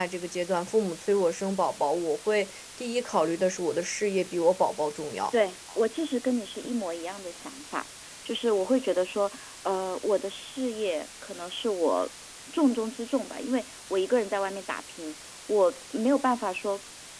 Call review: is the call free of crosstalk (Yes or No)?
Yes